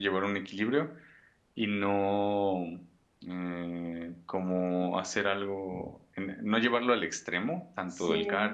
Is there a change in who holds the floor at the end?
No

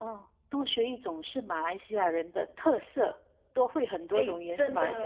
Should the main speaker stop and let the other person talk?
Yes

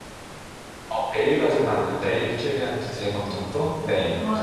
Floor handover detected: Yes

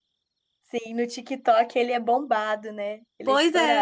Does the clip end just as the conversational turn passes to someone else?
Yes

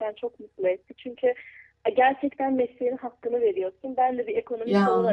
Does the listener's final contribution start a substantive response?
No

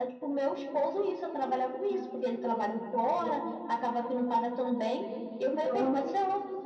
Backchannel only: Yes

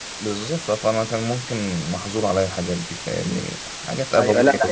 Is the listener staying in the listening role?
No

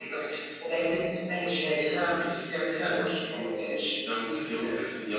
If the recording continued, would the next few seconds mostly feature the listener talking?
Yes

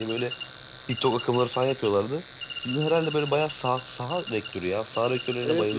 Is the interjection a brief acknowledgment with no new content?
No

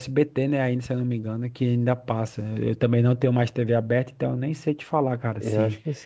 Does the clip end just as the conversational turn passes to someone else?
Yes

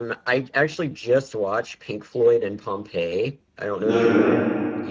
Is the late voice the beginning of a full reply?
No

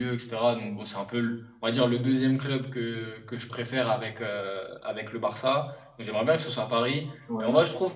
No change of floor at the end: Yes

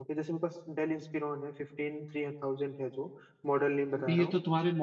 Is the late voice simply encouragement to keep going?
No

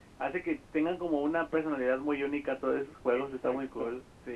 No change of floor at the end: No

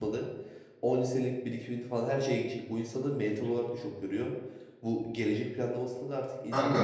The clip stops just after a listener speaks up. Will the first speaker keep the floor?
Yes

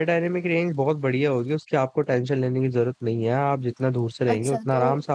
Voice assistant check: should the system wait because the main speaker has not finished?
No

